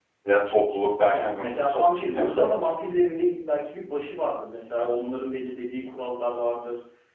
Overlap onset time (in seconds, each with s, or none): 1.1 s